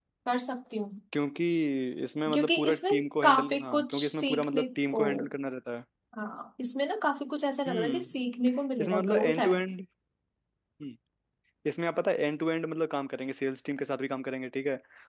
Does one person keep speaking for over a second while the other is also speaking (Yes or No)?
Yes